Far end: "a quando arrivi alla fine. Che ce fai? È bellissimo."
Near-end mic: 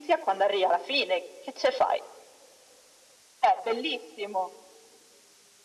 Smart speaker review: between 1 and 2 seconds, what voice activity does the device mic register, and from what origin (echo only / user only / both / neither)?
echo only